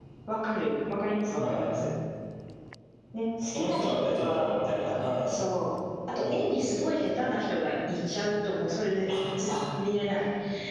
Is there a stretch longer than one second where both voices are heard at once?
Yes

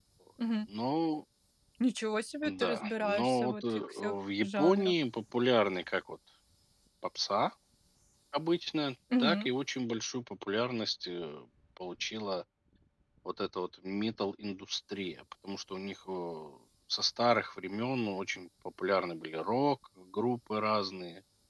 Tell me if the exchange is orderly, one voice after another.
No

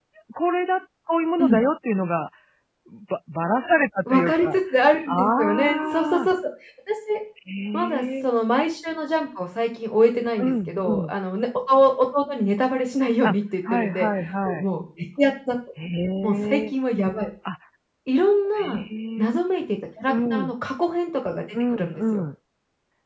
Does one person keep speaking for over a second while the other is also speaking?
Yes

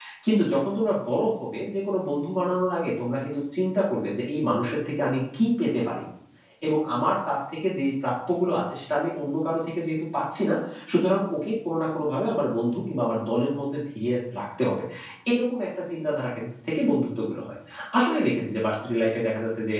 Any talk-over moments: No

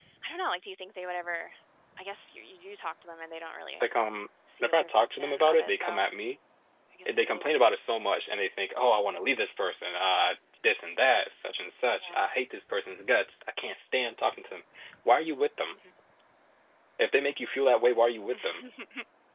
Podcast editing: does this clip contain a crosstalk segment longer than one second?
Yes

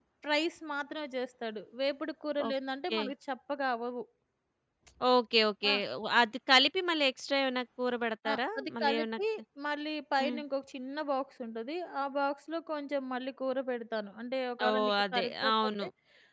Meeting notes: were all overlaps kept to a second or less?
No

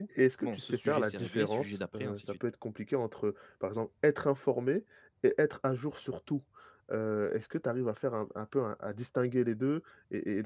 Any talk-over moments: Yes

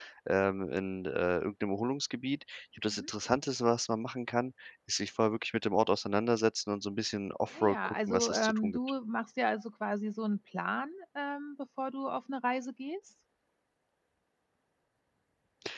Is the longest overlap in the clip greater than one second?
Yes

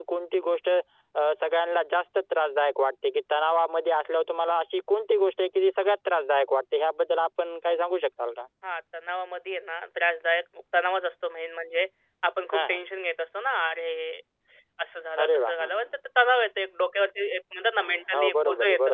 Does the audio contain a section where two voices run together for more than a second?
Yes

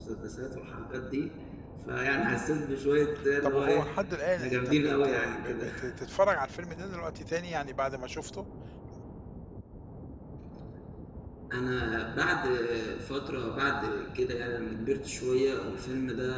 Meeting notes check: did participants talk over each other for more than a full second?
Yes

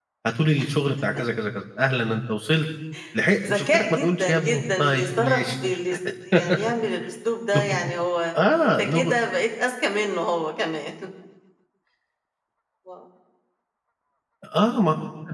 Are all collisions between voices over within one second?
No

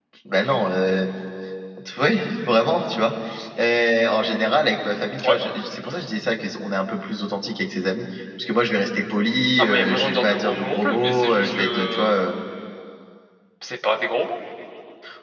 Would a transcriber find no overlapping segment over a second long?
No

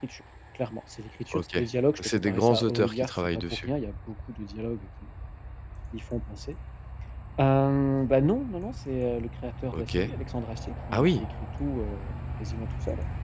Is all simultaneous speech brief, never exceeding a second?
No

